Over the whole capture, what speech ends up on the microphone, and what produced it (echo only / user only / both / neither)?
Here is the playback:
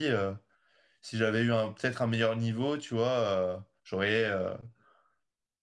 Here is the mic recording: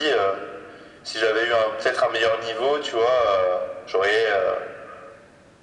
echo only